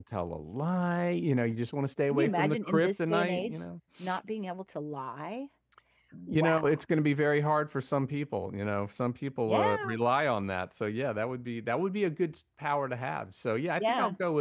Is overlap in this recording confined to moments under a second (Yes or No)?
No